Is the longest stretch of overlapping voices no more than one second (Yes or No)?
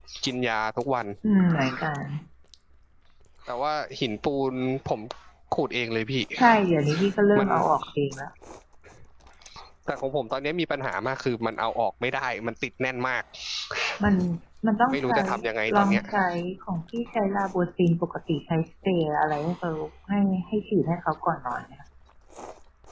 Yes